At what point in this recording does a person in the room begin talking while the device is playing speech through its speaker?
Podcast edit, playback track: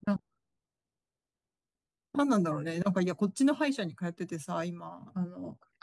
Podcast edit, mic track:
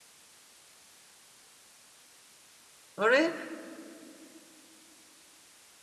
3.0 s

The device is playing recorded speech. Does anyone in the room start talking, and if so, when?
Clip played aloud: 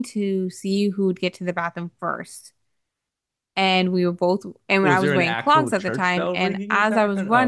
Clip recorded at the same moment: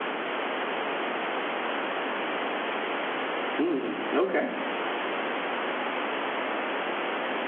3.6 s

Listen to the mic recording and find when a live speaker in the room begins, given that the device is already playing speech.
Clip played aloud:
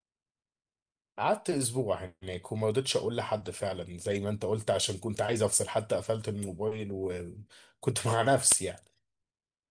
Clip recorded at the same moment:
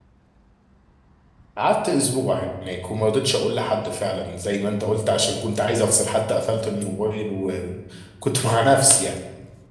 none

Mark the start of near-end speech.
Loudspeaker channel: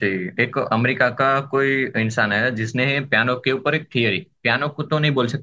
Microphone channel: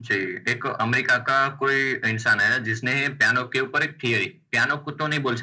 none

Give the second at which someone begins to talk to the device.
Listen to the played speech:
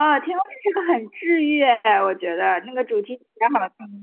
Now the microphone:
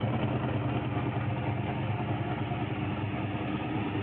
none

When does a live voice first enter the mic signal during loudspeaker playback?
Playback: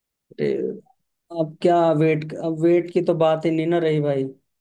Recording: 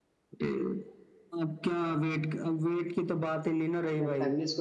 3.1 s

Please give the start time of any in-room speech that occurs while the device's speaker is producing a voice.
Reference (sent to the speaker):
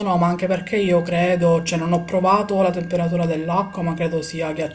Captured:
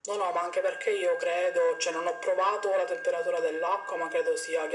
none

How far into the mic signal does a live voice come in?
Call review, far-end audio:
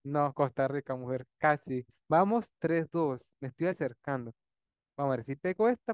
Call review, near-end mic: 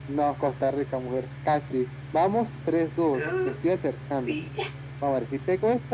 3.2 s

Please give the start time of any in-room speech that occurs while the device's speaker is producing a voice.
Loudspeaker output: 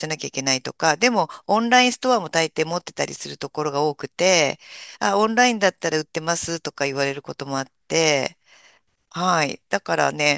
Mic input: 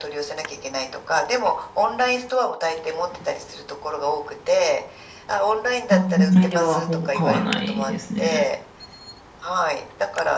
5.9 s

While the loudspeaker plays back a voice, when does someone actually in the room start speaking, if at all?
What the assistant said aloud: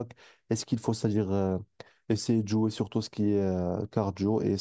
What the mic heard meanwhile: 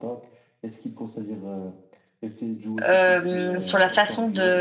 2.8 s

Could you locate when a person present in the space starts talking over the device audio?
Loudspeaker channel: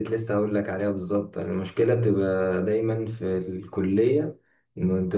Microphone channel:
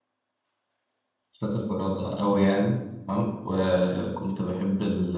1.3 s

